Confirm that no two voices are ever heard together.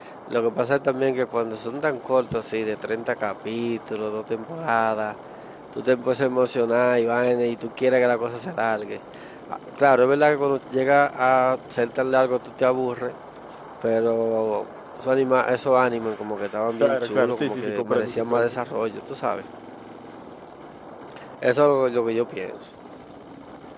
No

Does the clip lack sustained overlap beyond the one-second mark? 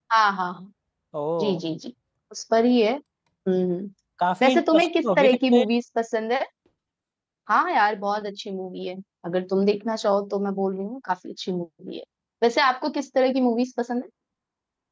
No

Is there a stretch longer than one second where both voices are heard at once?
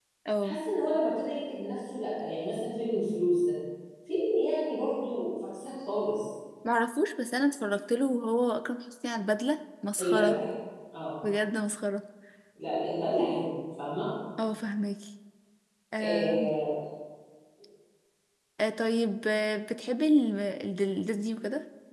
No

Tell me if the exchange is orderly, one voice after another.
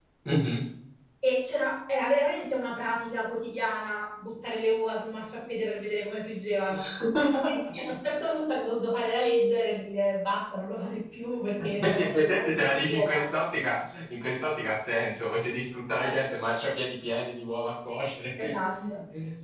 No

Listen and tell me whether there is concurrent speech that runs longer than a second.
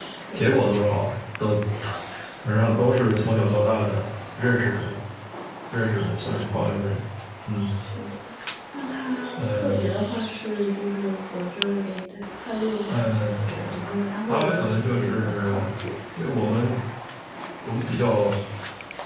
Yes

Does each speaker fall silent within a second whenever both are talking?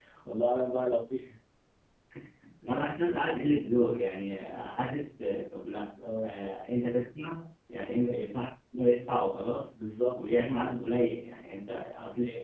Yes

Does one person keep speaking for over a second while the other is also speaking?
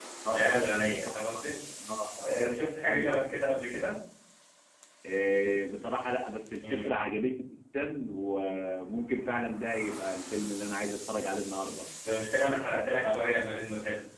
Yes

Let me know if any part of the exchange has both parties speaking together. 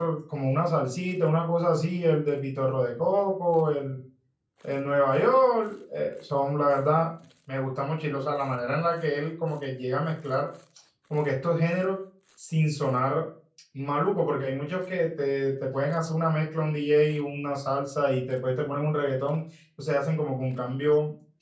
No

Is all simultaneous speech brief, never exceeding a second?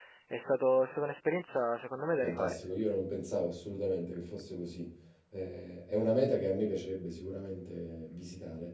Yes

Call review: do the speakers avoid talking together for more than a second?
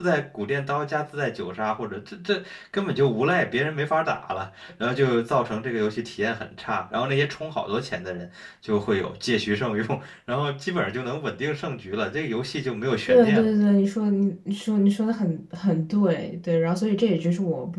Yes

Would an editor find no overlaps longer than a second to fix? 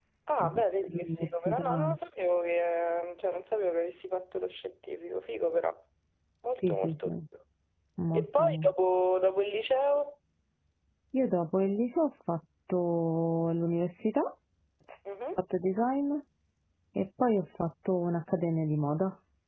No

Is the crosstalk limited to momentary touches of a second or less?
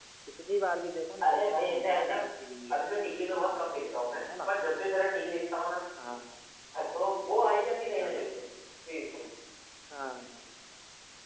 No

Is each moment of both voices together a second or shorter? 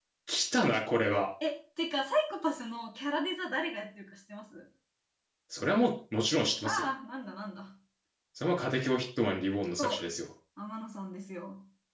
Yes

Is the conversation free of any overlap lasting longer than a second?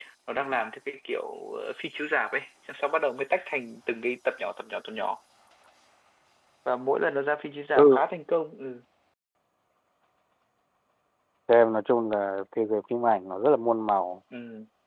Yes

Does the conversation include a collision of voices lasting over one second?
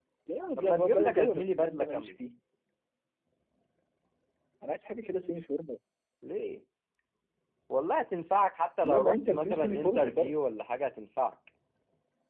Yes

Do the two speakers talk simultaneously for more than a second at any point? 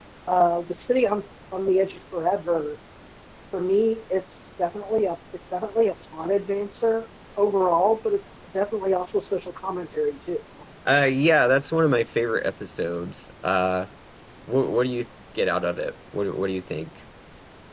No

